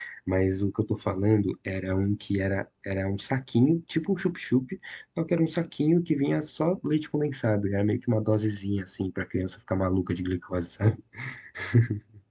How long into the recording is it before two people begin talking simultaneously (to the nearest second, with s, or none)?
none